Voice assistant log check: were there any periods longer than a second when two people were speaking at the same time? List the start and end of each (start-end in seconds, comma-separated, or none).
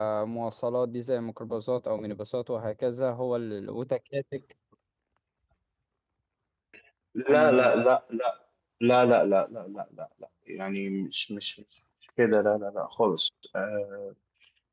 none